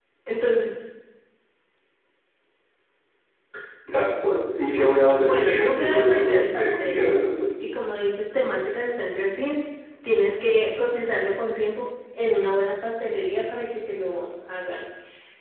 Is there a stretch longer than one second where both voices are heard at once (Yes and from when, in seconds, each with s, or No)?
Yes, from 5.2 s